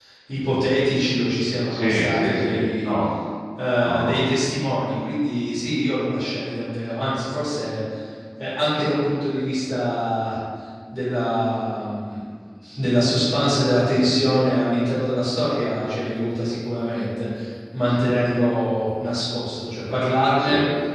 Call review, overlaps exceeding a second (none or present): present